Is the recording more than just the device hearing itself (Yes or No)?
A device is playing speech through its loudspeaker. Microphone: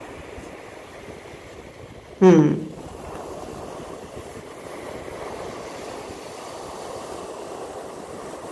Yes